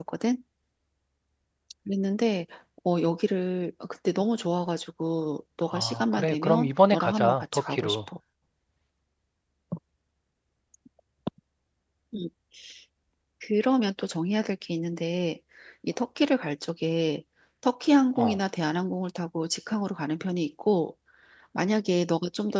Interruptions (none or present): present